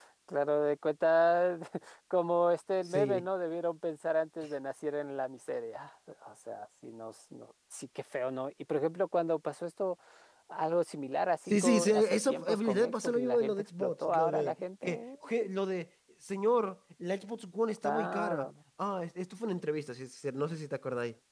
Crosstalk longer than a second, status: present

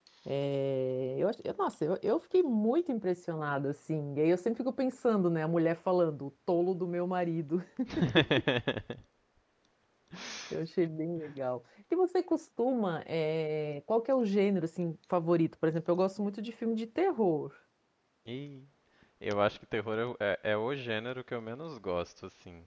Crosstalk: none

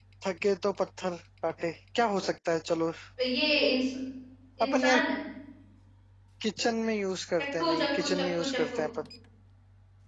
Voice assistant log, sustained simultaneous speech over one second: present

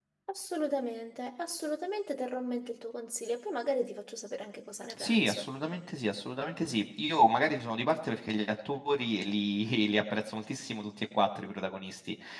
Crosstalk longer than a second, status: none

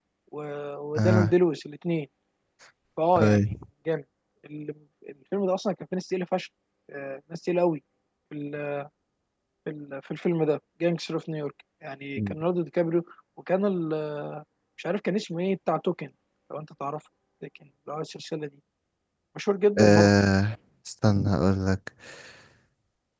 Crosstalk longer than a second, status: none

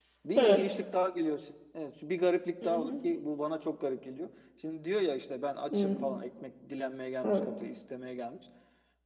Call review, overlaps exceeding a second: none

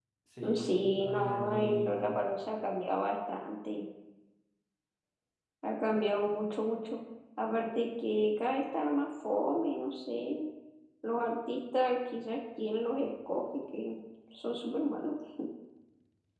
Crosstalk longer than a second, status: present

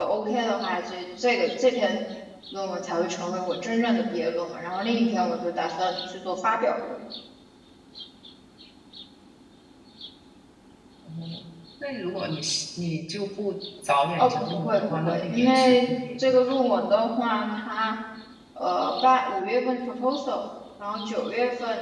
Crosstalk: present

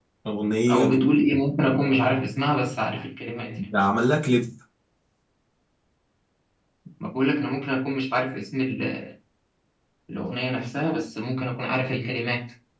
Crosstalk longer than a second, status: none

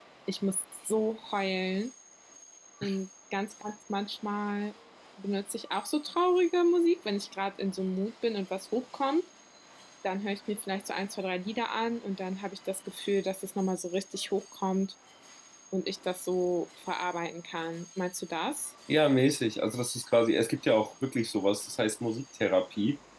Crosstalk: none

